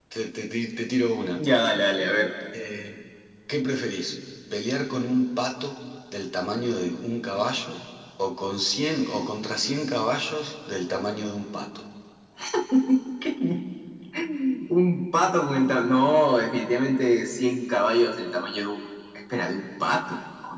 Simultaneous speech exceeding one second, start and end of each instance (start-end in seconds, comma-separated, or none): none